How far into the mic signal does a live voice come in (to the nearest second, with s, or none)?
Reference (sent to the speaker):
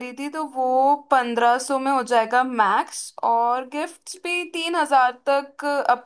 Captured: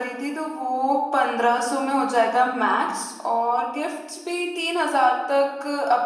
none